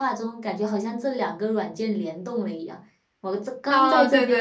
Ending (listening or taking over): taking over